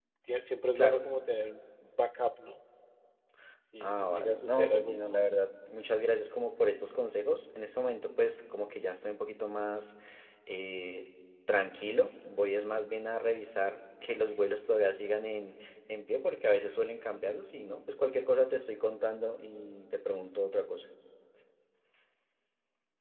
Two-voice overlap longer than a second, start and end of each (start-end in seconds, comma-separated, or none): 3.8-5.2